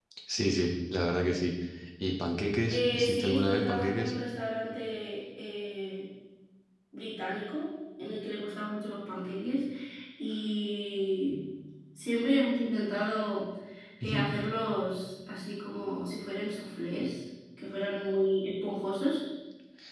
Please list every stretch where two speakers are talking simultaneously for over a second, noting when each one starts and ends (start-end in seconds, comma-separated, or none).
2.7-4.1